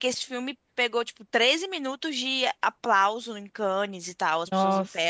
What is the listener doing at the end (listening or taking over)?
listening